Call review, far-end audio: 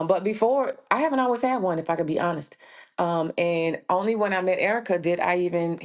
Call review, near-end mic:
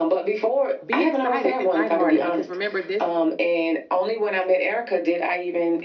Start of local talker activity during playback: 0.8 s

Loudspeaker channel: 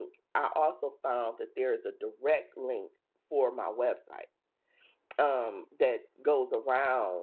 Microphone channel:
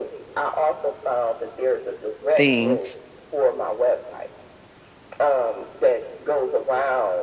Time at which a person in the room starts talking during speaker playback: 2.4 s

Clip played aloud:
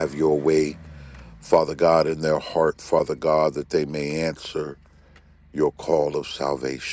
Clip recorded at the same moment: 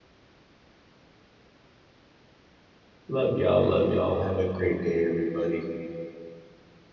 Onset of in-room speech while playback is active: 3.1 s

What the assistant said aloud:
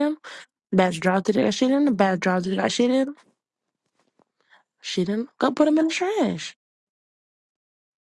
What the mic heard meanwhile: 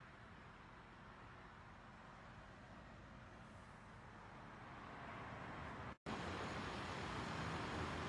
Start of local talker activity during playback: none

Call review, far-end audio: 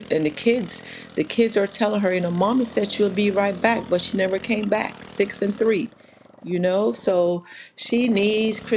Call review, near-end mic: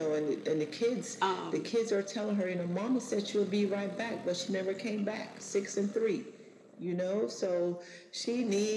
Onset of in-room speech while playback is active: 1.2 s

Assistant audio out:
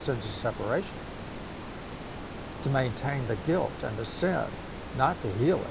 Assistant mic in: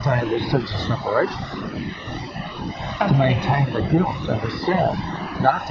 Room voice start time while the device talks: 3.0 s

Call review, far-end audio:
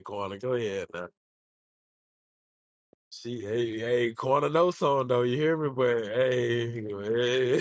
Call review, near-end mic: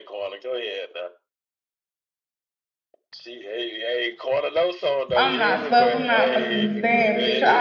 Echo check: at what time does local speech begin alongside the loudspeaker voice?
5.1 s

